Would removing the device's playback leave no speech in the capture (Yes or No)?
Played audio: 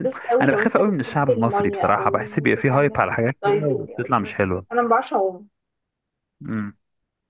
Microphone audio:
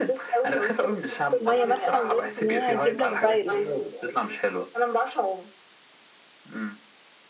No